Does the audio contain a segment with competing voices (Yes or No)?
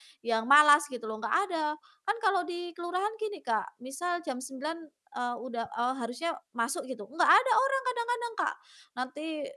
No